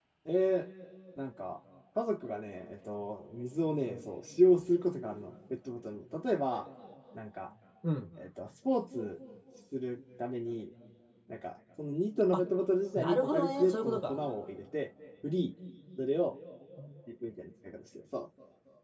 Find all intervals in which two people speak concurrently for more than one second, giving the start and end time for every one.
13.0-14.2

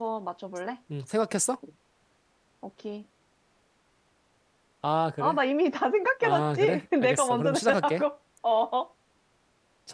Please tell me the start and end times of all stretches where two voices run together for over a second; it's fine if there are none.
6.2-8.0

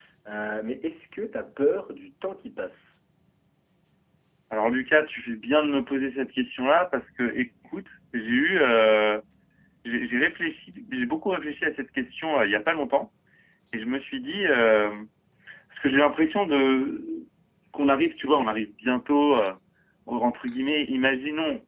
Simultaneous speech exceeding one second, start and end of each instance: none

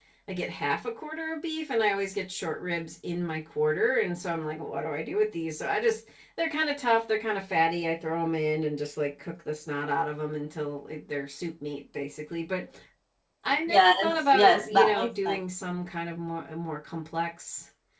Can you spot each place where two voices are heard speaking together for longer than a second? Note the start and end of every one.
13.7-15.4

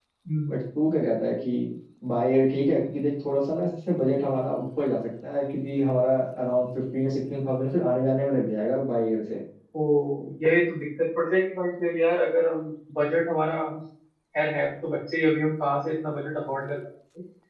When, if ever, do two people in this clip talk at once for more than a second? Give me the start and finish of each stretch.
none

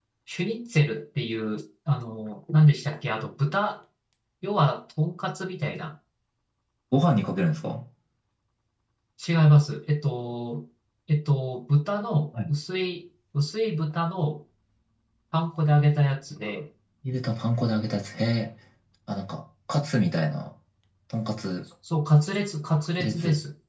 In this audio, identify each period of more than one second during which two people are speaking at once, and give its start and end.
none

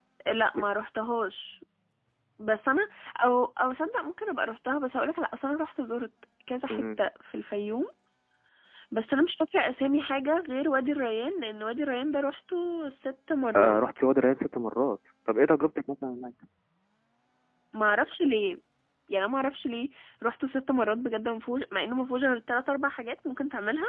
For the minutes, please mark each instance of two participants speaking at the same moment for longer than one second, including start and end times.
none

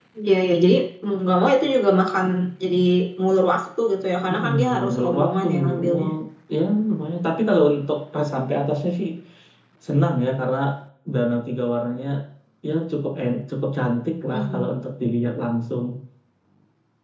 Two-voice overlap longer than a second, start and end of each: 4.3-6.1

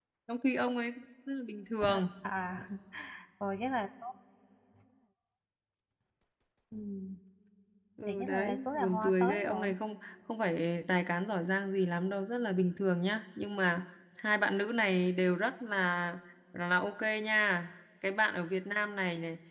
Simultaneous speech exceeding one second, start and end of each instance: 8.1-9.7

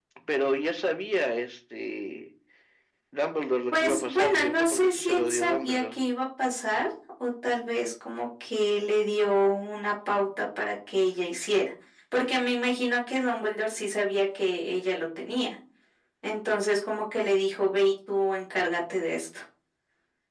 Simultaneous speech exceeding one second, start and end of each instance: 3.7-6.0

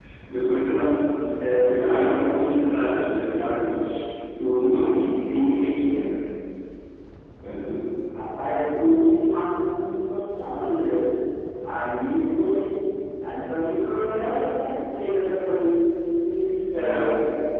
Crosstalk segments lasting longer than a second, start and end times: none

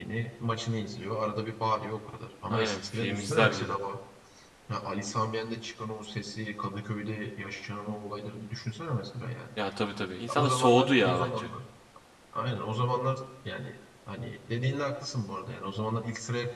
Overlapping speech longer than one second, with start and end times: 2.5-3.8, 10.3-11.5

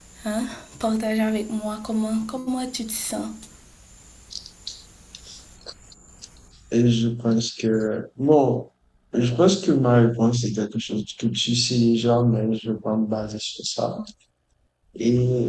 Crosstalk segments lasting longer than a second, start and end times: none

